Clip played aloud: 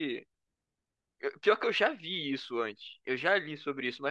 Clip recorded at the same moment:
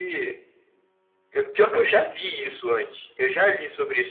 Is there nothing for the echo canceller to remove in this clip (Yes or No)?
No